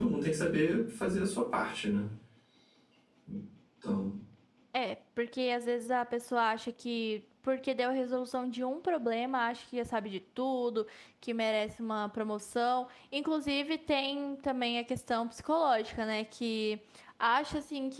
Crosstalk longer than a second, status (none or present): none